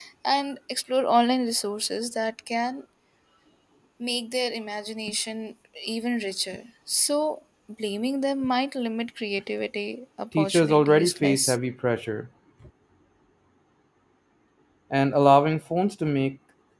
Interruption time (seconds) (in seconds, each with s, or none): 10.3 s